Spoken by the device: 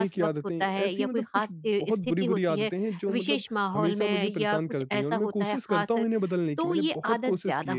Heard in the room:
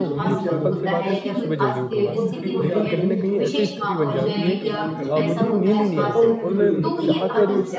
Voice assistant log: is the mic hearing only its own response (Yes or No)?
No